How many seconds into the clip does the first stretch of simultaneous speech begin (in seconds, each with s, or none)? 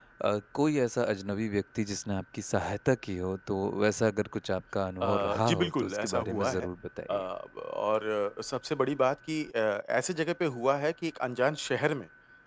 5.0 s